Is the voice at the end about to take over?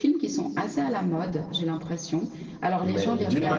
Yes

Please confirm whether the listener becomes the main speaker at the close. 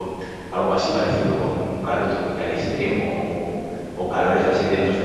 No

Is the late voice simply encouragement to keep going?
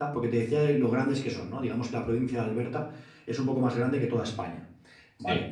Yes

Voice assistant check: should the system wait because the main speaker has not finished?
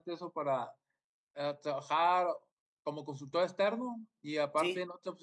Yes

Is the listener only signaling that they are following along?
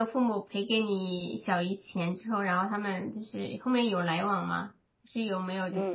No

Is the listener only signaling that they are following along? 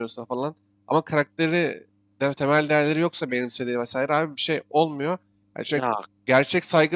Yes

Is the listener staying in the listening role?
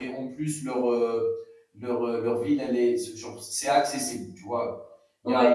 Yes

